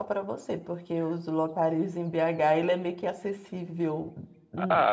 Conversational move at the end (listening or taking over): taking over